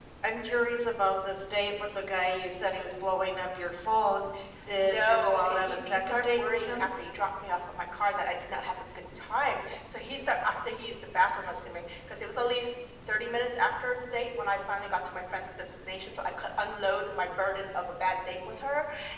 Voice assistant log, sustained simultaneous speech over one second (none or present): present